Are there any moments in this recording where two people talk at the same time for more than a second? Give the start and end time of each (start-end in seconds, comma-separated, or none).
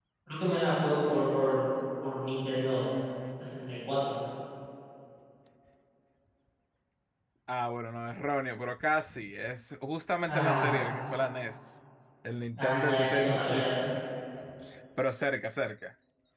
12.6-13.9